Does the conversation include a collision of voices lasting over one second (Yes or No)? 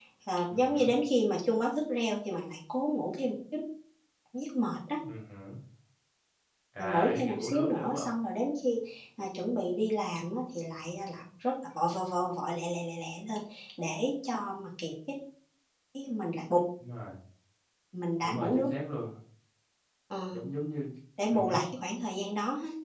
Yes